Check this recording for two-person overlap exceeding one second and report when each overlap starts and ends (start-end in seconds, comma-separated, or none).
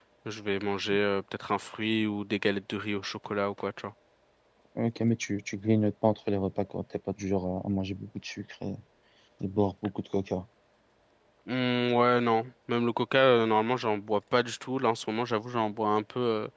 none